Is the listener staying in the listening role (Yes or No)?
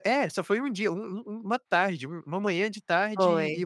Yes